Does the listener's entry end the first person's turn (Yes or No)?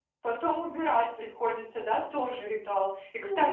No